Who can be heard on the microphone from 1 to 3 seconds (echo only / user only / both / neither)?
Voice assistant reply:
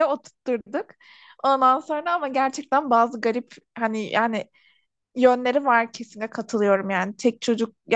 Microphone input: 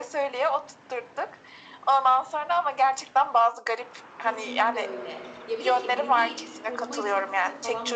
echo only